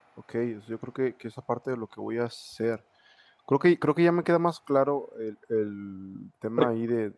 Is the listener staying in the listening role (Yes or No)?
Yes